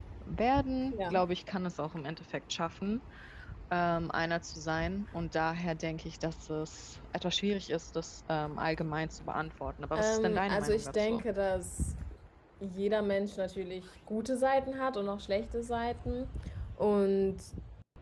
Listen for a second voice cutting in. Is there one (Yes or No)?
Yes